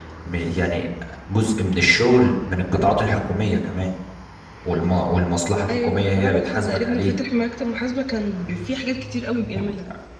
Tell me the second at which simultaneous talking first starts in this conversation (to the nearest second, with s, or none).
6 s